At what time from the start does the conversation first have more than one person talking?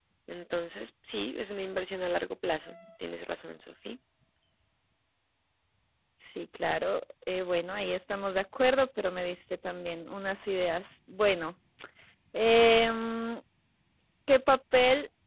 none

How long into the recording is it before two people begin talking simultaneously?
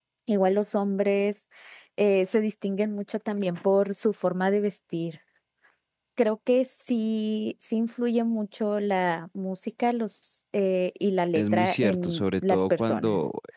11.4 s

